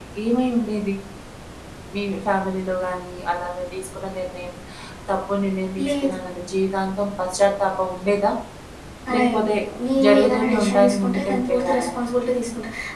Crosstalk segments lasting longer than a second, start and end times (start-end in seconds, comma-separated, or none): 10.1-11.9